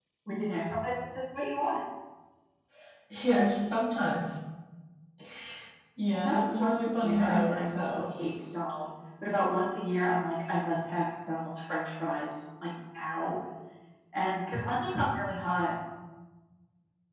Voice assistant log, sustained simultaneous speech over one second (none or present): present